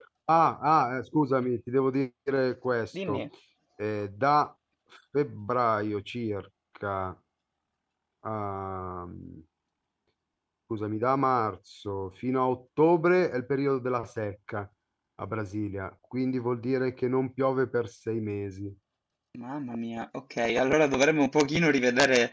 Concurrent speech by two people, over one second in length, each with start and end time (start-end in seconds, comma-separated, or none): none